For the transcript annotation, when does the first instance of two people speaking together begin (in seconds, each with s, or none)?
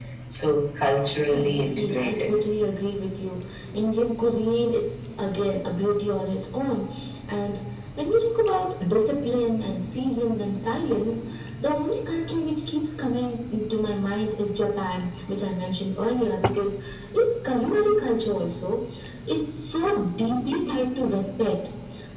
0.9 s